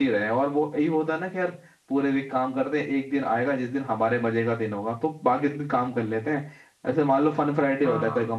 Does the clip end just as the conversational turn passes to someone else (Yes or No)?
No